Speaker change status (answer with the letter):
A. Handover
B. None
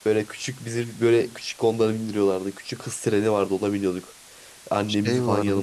B